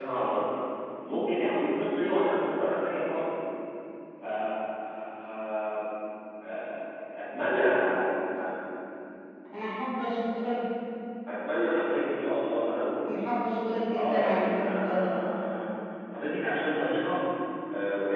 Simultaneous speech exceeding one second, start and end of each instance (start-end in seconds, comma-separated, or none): 13.9-15.2